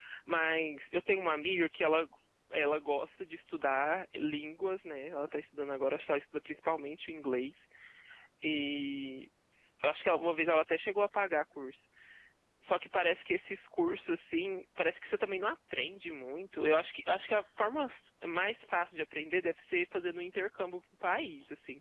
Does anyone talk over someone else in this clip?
No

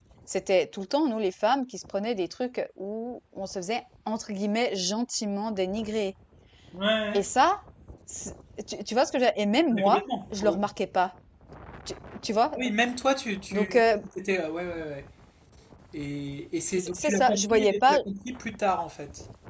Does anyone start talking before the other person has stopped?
Yes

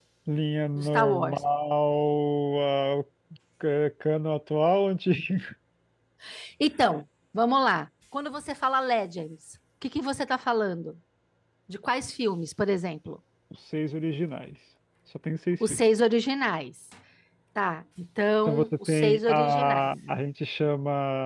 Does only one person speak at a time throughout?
No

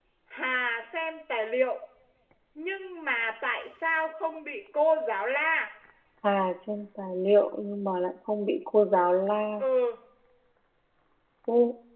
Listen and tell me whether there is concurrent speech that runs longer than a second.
No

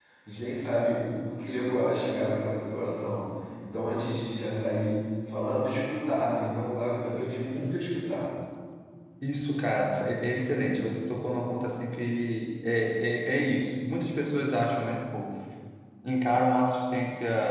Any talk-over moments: No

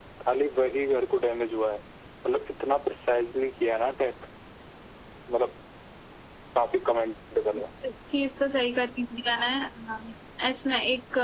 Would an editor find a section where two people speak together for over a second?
No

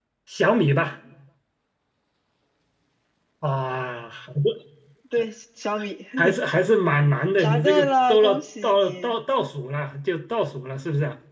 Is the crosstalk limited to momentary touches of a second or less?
No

